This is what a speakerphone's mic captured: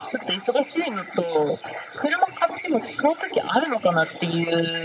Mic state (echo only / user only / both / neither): echo only